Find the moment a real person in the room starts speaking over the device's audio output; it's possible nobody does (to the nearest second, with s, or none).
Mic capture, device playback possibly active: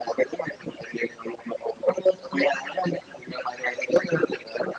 none